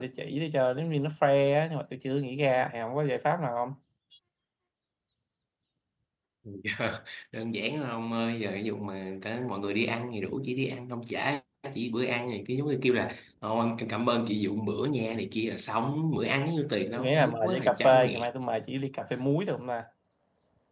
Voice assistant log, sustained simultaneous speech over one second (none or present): present